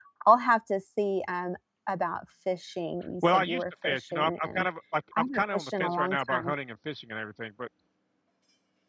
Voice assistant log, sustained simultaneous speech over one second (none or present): present